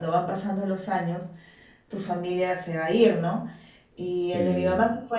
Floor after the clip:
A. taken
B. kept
B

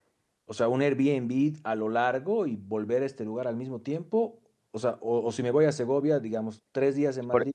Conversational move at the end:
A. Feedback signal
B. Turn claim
B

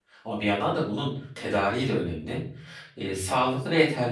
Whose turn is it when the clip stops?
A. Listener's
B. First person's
B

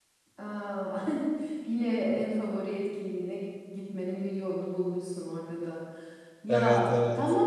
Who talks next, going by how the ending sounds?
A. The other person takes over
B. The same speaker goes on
B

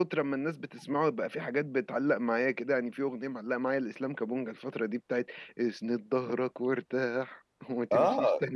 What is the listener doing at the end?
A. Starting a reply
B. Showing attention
A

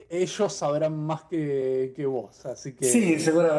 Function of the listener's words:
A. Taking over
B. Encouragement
A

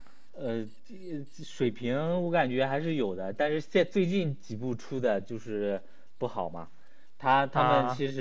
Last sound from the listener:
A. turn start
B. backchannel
B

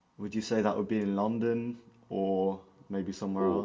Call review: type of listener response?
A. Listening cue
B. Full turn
B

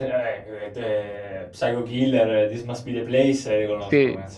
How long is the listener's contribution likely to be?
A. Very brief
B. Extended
B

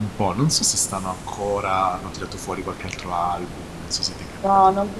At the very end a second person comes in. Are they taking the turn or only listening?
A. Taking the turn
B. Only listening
A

